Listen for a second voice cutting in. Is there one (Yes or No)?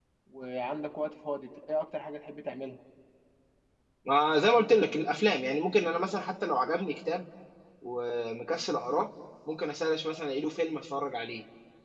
No